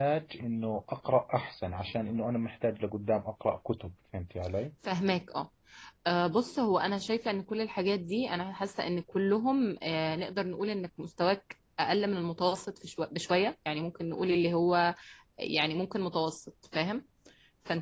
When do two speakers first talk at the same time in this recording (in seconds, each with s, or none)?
none